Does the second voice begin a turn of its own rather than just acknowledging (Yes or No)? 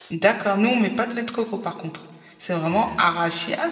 No